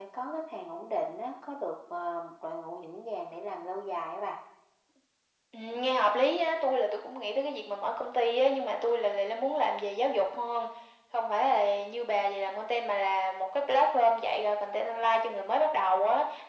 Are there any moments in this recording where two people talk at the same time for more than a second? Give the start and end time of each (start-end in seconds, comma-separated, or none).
none